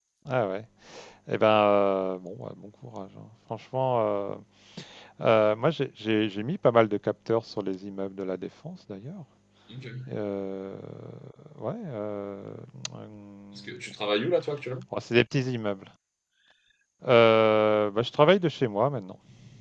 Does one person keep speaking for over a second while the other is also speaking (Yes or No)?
No